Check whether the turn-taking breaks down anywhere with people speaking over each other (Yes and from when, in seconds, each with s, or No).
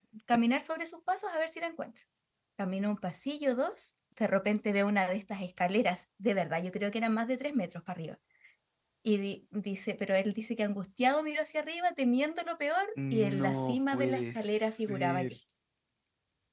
Yes, from 13.0 s